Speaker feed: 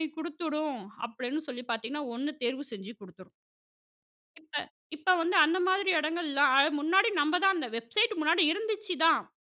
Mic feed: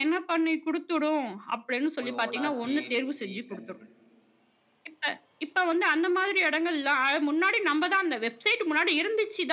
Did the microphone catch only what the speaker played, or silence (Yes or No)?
No